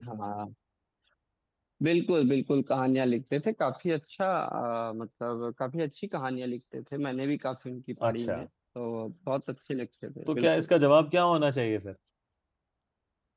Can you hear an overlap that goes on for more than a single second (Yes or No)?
No